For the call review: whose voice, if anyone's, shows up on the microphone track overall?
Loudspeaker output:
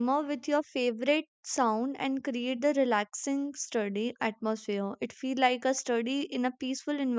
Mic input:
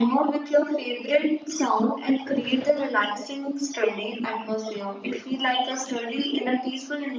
echo only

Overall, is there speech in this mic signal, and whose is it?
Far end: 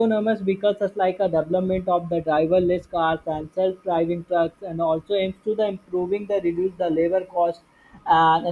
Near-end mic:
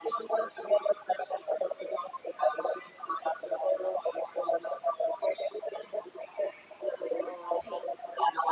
both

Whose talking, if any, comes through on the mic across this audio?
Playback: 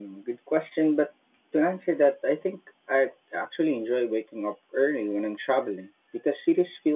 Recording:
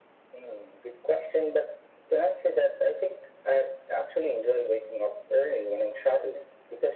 echo only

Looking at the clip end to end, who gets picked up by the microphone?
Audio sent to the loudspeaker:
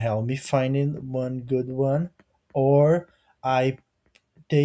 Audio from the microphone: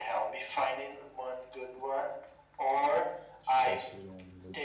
both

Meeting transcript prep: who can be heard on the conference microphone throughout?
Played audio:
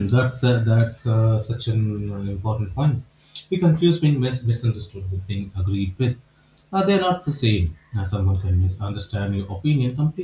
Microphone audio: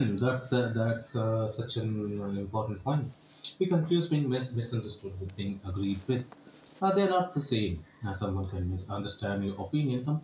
echo only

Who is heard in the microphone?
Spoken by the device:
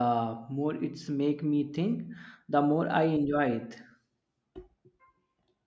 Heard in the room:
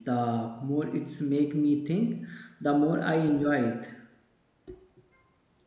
echo only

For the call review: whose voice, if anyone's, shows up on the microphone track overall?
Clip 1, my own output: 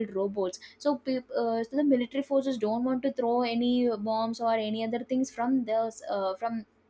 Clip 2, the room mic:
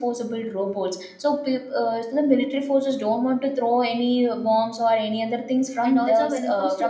both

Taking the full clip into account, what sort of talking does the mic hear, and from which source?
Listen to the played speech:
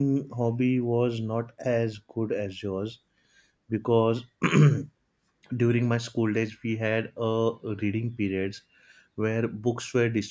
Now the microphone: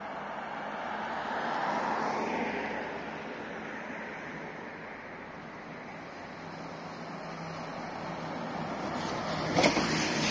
neither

